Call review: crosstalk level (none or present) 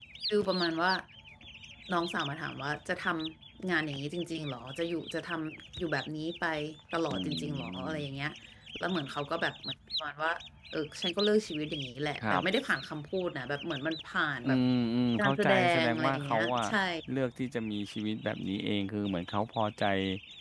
present